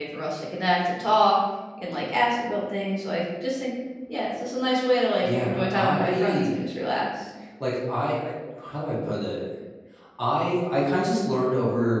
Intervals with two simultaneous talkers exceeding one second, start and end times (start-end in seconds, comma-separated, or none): 5.2-6.6